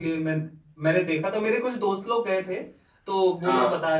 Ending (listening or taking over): listening